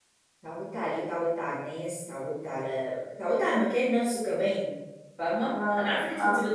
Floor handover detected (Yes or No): No